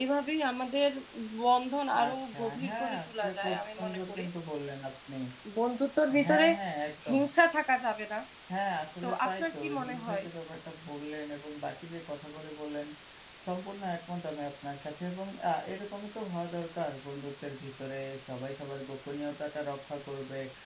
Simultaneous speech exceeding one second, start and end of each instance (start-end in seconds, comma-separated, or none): 2.0-4.3, 9.0-10.2